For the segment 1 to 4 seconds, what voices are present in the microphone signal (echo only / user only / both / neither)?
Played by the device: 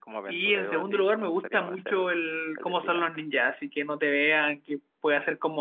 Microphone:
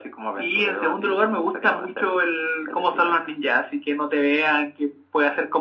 echo only